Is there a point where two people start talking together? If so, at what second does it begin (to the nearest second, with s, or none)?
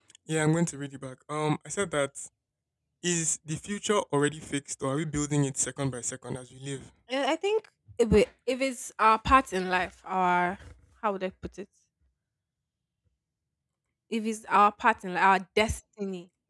none